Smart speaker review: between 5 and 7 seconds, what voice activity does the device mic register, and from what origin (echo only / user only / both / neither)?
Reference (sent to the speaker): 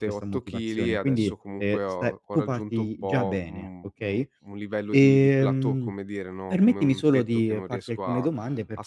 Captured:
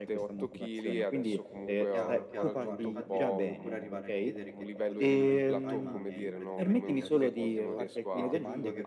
both